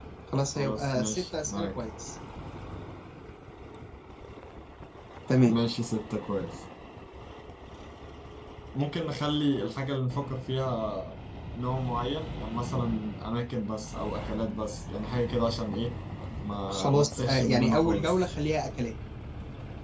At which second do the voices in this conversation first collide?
0.6 s

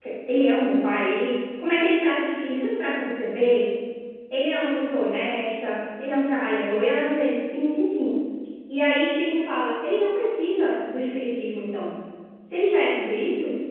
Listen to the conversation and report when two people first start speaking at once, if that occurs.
none

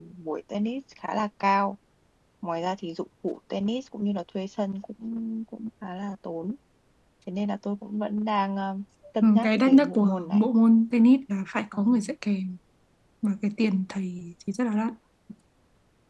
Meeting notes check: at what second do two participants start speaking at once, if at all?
9.2 s

